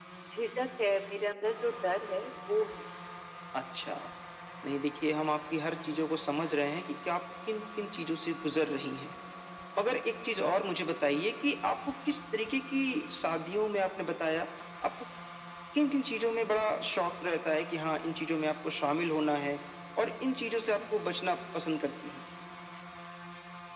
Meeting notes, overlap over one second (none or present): none